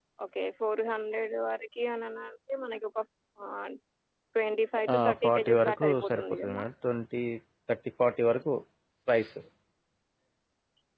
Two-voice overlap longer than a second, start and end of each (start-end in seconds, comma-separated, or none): 4.9-6.6